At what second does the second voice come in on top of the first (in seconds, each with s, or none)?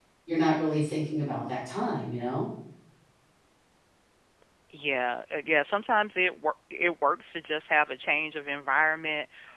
none